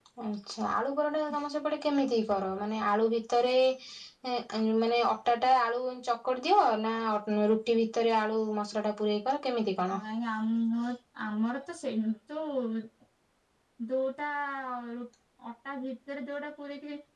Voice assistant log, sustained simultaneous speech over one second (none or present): none